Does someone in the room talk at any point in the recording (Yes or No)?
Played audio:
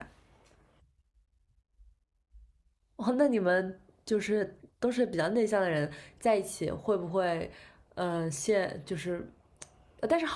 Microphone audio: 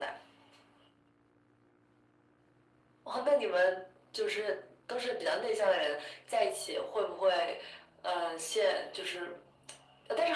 No